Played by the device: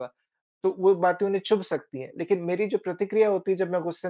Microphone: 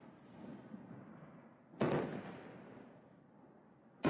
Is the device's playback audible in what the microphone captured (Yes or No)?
No